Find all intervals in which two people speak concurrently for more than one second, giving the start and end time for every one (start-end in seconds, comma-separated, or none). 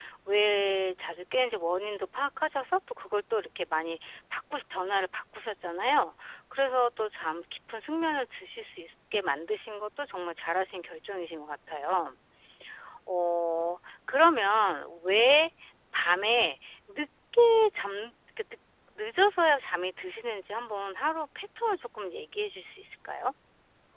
none